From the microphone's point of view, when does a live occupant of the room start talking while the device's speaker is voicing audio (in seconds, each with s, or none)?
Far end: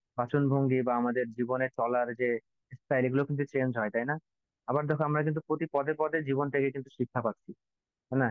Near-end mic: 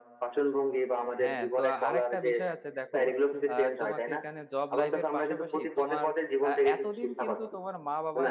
1.2 s